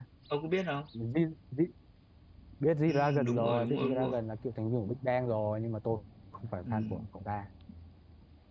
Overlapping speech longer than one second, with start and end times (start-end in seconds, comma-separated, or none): 2.9-4.1